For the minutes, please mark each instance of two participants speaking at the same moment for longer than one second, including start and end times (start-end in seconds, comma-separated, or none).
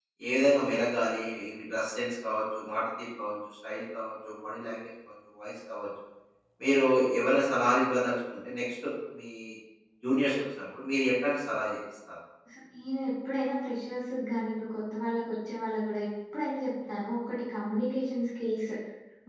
none